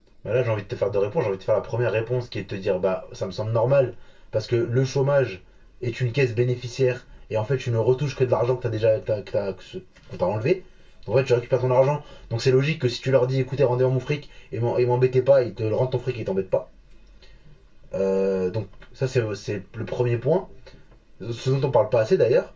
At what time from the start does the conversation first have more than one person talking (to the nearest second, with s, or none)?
none